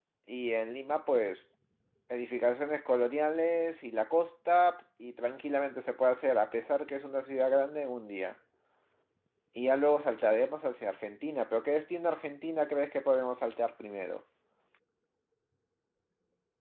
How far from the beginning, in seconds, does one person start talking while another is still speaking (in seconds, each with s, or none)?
none